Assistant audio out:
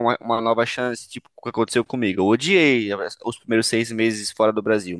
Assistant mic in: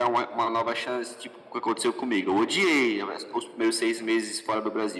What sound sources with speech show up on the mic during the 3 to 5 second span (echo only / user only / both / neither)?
echo only